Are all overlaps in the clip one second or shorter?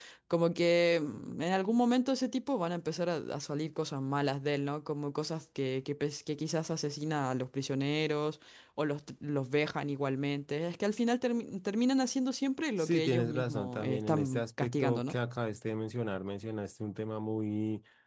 No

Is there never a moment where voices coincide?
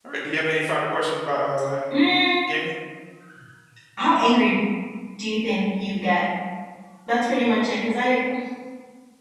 Yes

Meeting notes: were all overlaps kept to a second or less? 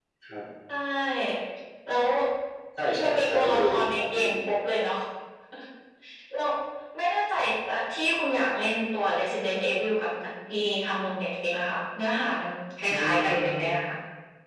No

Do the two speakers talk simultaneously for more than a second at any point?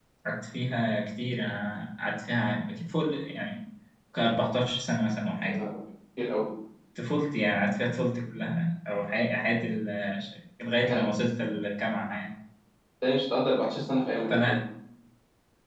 No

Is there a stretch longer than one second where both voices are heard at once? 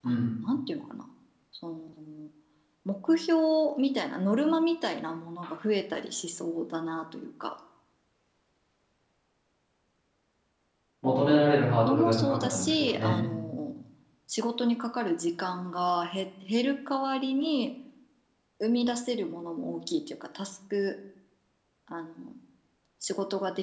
Yes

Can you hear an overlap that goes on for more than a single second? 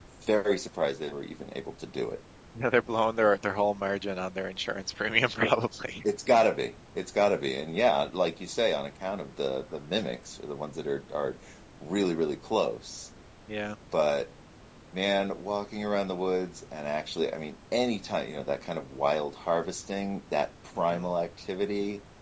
No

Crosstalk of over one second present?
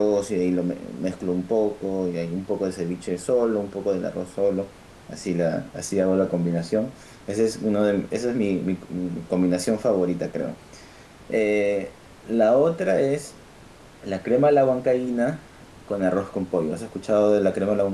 No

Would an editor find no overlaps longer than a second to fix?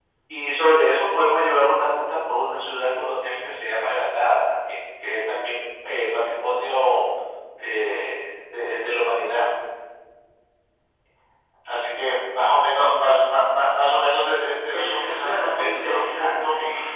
No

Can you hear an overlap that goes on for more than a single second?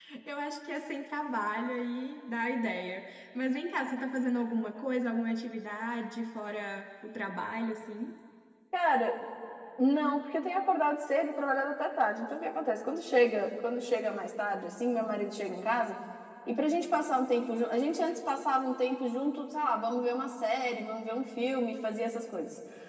No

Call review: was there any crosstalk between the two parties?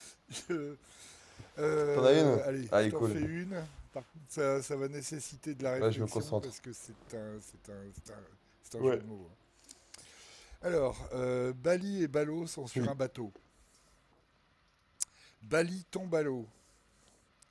Yes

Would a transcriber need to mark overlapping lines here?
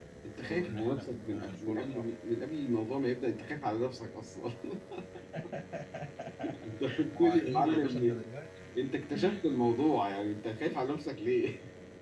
Yes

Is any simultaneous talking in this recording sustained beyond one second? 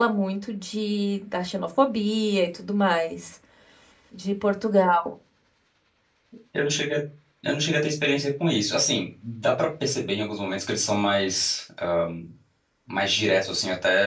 No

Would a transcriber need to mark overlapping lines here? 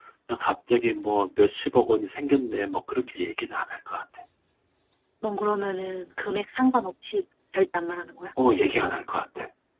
No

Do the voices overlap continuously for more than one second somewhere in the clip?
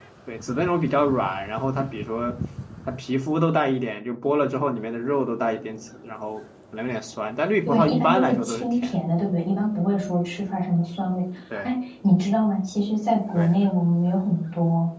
Yes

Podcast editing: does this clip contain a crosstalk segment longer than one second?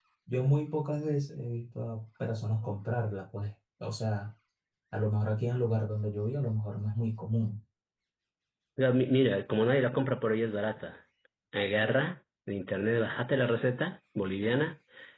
No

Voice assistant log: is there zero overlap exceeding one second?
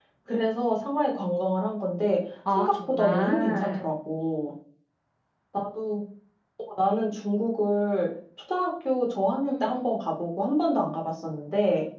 No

